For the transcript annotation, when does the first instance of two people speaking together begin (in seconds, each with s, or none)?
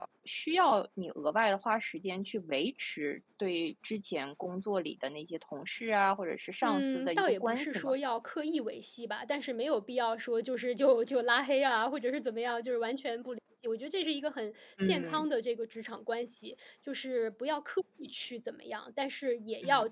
6.6 s